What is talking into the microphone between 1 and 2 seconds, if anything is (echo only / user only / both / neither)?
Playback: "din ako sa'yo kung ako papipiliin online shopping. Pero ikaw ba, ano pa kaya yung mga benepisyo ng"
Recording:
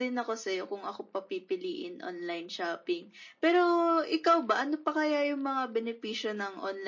echo only